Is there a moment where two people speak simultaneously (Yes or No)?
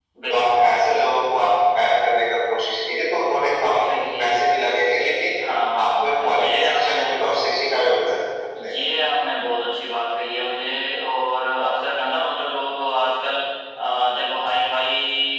Yes